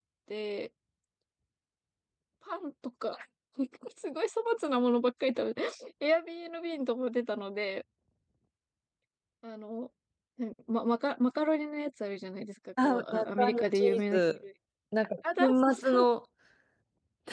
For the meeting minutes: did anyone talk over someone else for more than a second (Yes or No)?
Yes